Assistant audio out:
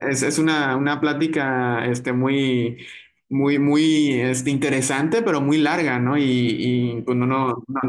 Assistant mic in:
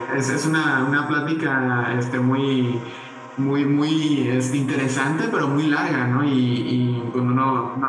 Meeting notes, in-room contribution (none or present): none